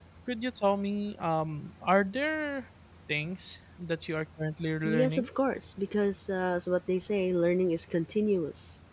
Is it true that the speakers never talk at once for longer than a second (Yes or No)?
Yes